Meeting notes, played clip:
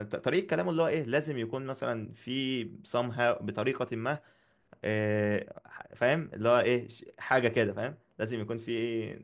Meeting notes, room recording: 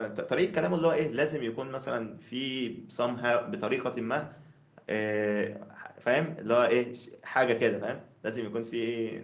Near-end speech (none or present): none